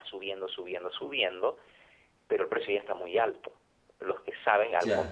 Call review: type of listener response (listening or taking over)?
listening